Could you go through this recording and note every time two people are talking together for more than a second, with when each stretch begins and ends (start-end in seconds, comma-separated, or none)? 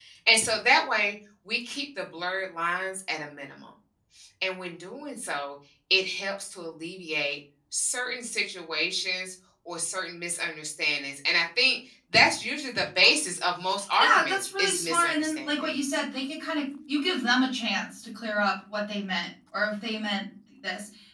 14.0-15.7